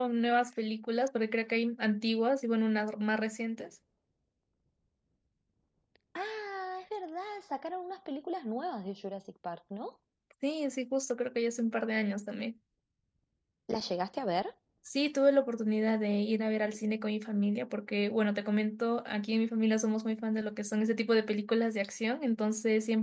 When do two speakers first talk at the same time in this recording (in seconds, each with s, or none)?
none